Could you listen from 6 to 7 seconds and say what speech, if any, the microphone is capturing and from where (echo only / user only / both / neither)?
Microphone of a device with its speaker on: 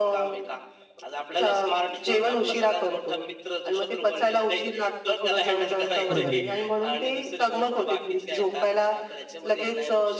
both